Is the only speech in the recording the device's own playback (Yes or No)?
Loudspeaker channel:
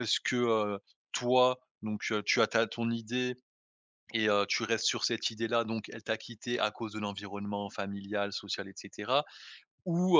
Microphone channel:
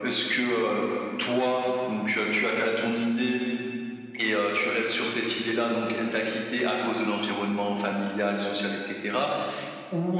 Yes